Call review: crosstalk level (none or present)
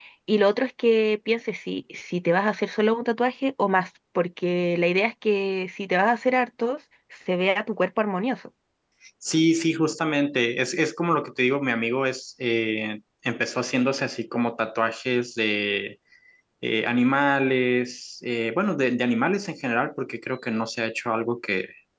none